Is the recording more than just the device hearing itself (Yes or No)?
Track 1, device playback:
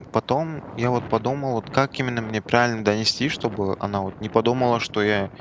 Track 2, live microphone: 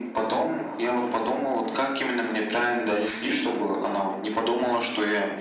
No